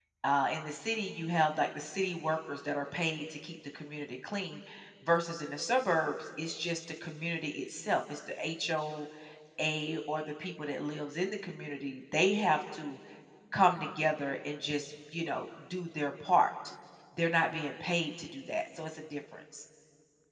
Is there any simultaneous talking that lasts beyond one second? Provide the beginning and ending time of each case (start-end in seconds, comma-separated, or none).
none